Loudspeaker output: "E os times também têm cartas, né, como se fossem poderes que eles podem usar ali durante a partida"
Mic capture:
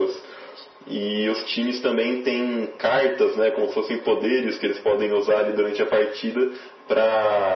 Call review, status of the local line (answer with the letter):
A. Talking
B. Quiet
B